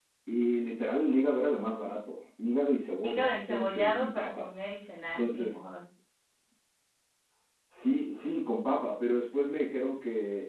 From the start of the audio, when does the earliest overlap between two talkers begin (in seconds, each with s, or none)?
3.0 s